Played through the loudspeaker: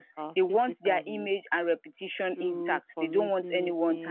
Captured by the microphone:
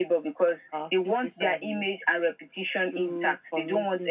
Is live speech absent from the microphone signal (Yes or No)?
Yes